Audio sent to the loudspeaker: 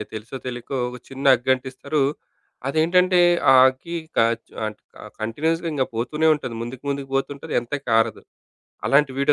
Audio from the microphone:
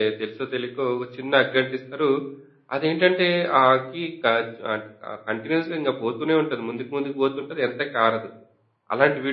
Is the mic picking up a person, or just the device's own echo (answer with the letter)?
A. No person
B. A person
A